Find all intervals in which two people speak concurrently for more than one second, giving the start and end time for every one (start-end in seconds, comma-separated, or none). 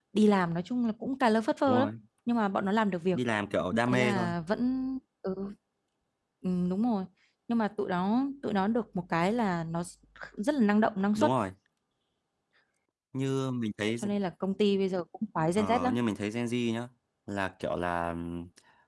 none